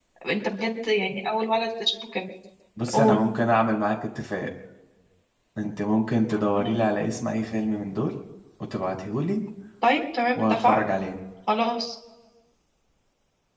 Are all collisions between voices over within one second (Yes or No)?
Yes